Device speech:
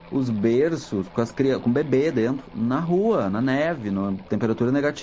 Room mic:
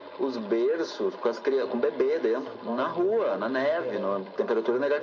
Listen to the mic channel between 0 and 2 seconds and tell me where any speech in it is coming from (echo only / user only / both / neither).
both